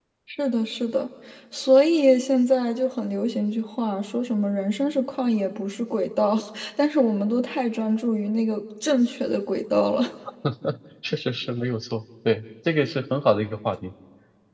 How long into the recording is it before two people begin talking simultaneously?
none

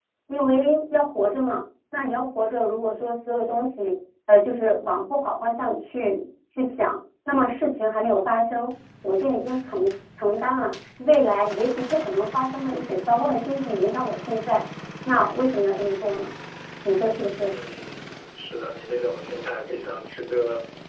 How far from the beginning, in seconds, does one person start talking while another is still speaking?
none

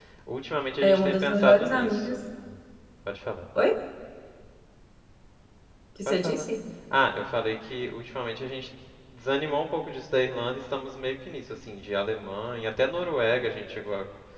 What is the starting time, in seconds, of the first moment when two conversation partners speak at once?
1 s

